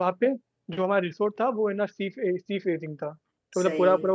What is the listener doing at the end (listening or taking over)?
listening